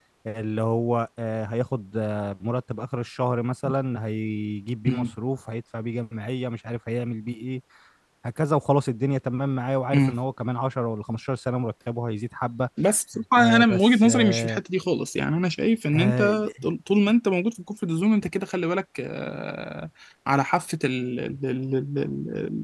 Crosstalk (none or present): present